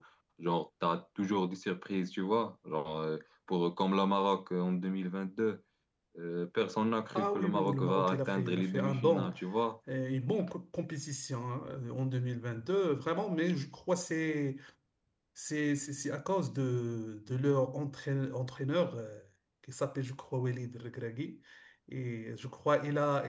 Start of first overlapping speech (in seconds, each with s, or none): 7.2 s